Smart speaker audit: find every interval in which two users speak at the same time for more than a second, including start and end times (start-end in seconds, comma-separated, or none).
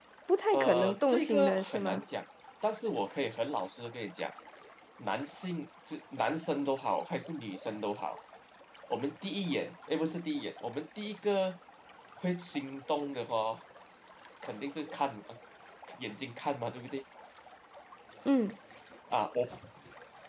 0.5-2.0